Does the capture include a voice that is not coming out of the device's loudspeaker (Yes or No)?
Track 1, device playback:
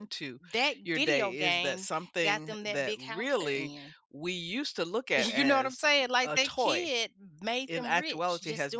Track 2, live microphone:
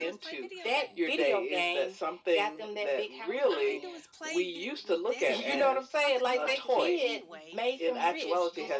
Yes